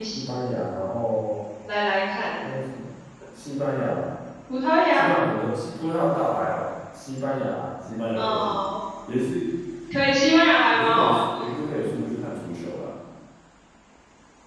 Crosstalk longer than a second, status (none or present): none